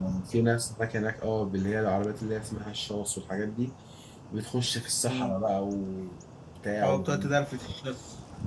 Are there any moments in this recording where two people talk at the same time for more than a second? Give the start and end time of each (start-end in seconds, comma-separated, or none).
none